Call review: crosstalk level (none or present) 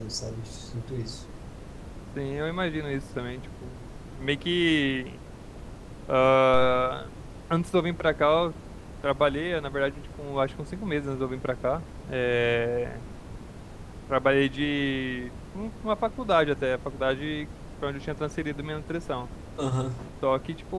none